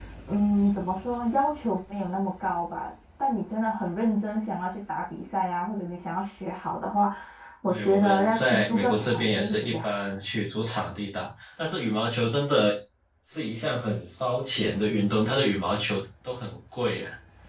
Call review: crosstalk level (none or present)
present